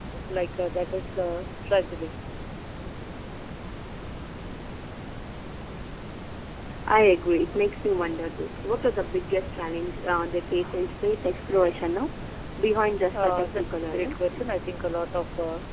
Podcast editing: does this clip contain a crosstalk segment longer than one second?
Yes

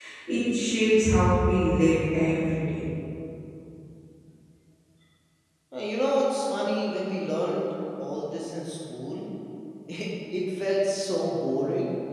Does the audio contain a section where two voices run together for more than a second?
No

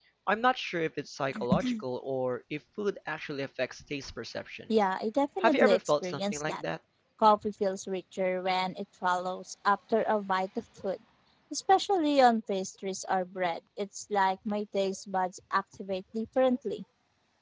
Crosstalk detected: Yes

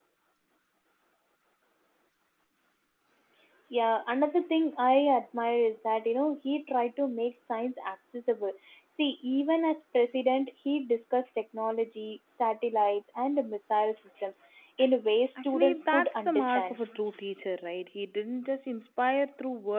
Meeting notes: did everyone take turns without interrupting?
No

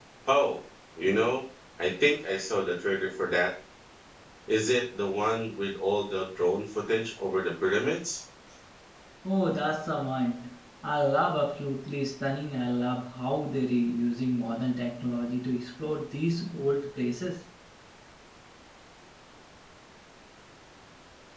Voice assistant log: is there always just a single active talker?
Yes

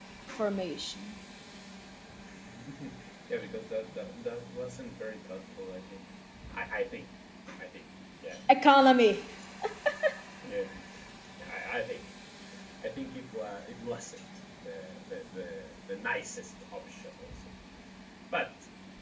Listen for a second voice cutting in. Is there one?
No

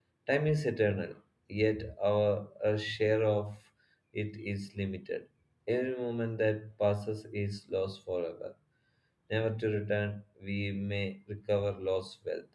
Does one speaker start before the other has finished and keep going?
No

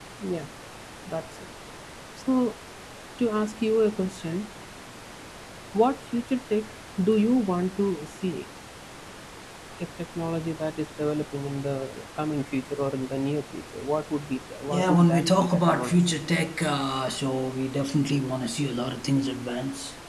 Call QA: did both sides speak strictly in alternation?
No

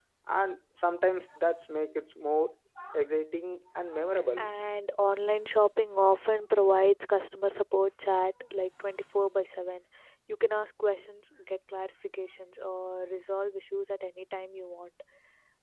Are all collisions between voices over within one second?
Yes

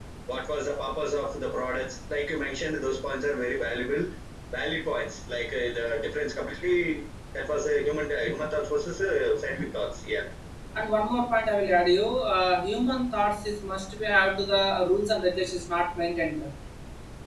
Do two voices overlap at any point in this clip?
No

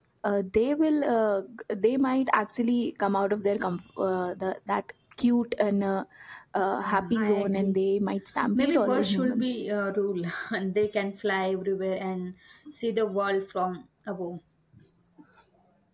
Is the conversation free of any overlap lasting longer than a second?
No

